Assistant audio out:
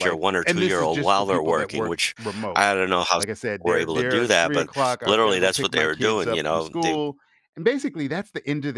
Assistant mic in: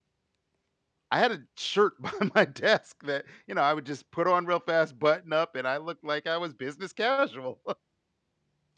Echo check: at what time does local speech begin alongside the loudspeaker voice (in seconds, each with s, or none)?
1.1 s